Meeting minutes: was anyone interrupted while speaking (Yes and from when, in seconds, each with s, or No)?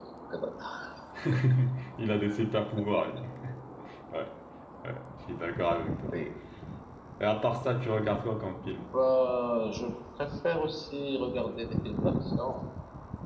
No